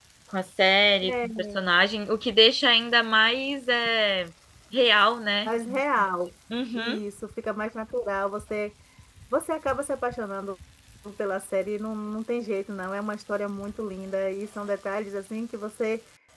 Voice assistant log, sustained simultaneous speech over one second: none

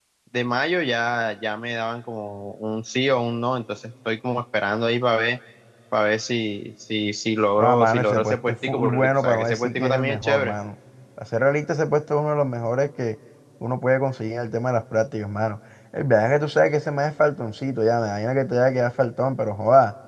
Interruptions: present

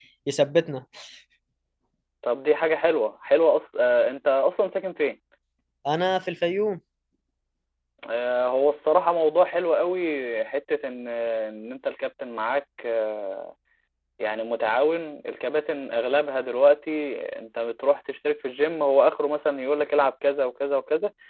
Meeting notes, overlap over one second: none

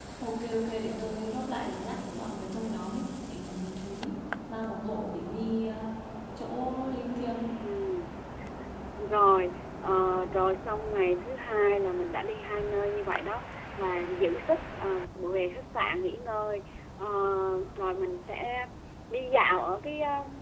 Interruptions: none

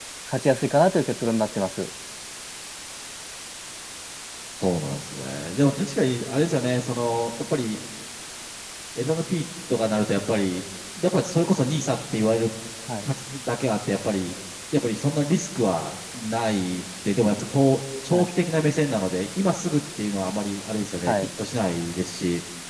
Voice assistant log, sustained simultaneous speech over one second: none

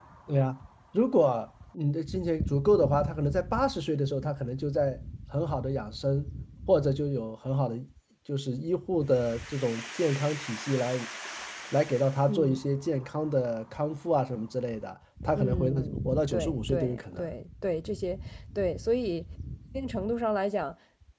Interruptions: present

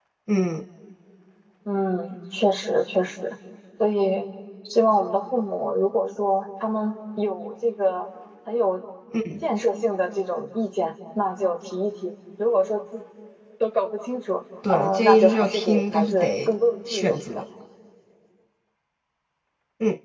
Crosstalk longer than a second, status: present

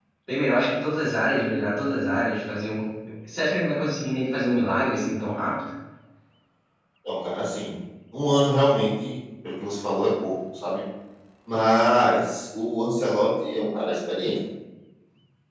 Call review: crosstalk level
none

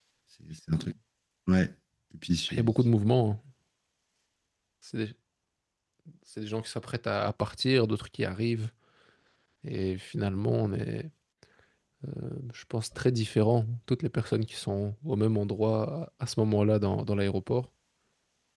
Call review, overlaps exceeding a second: none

